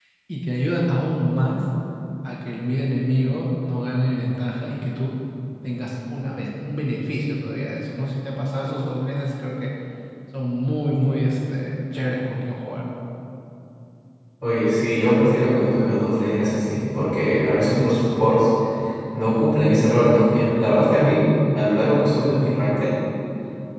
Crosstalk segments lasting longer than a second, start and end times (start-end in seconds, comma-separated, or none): none